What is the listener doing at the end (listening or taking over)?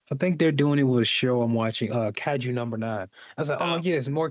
listening